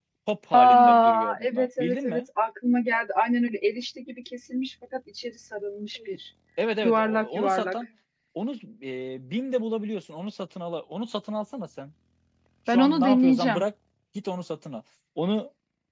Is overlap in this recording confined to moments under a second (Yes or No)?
No